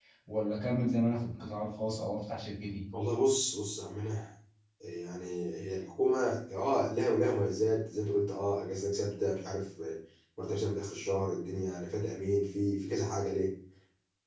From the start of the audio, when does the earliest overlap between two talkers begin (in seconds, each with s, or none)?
none